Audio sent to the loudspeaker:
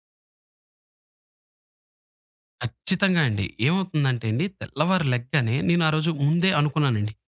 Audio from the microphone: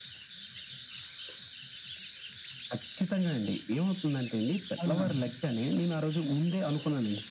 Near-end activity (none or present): present